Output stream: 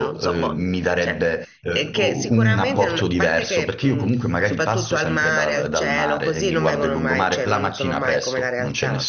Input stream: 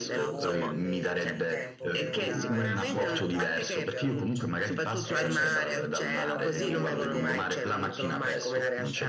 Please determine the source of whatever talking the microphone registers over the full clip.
both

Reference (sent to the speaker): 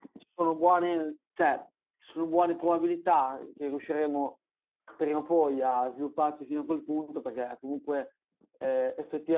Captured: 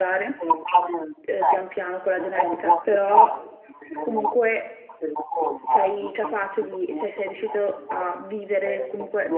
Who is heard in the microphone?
both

